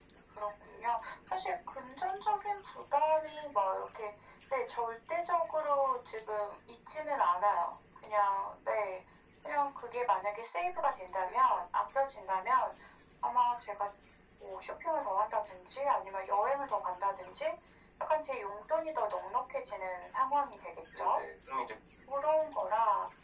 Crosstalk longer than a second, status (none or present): none